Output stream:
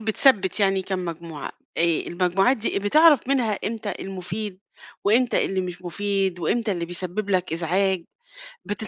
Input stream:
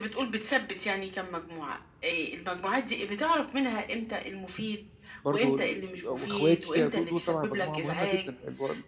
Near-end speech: present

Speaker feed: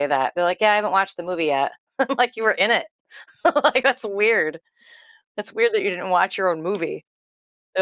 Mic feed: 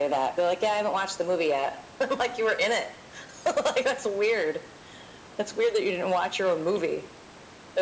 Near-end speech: none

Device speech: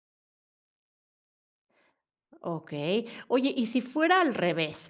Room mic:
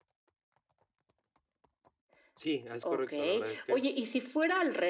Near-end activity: present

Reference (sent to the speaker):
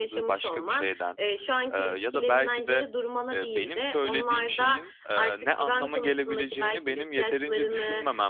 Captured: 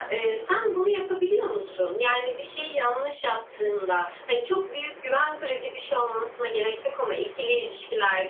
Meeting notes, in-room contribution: present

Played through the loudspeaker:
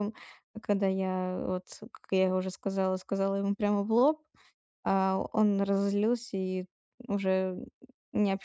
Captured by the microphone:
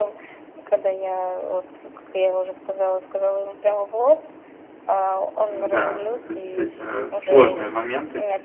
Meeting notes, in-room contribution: present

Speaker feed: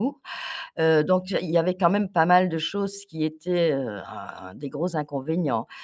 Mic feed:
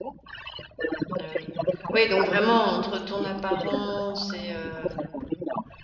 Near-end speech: present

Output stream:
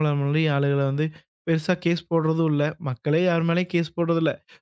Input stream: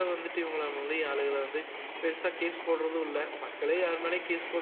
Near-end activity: none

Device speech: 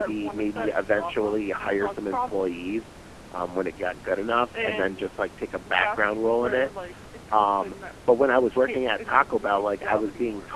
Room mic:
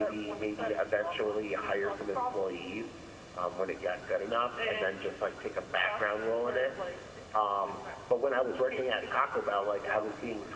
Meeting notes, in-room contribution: none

